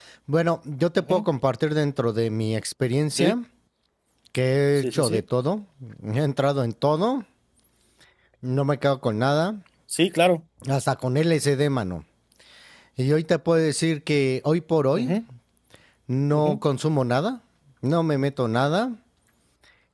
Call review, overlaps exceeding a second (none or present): none